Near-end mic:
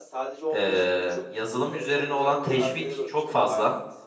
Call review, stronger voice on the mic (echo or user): user